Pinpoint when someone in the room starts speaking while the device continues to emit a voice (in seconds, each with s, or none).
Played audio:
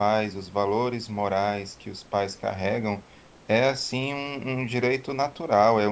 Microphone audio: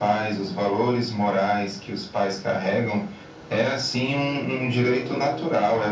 none